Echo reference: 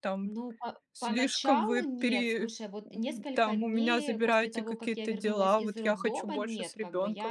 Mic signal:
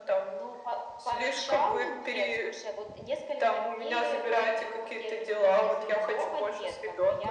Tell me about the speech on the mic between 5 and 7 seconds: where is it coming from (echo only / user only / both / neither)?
echo only